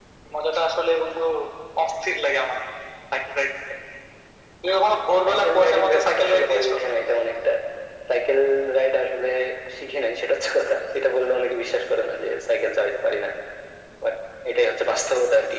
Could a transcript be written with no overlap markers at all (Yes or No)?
No